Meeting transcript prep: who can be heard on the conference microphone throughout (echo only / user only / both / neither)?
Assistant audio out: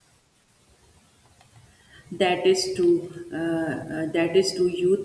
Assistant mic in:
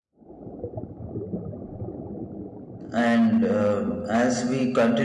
user only